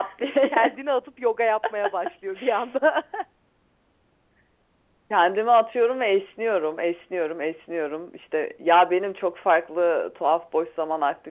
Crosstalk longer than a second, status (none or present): none